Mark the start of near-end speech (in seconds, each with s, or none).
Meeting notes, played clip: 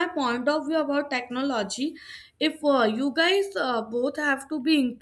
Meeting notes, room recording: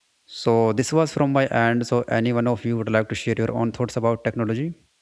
0.4 s